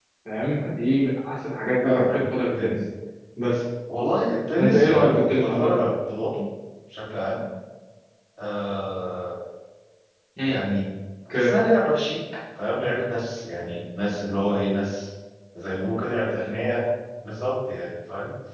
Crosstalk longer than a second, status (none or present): present